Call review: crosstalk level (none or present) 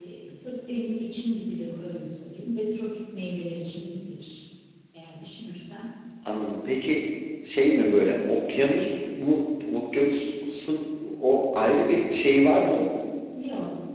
none